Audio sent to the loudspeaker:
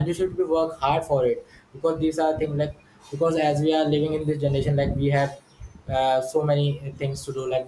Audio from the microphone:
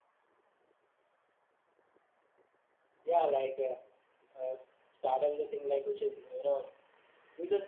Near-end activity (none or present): present